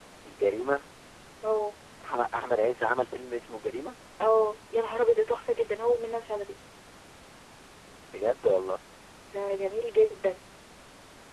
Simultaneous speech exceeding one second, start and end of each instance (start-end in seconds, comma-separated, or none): none